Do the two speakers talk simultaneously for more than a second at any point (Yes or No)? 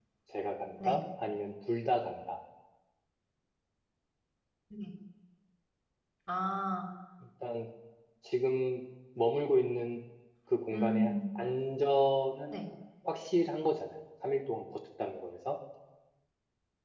No